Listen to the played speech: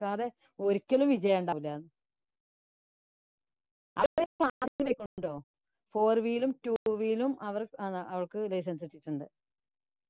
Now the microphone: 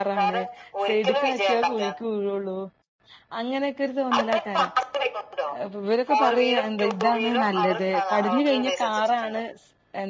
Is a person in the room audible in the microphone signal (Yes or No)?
Yes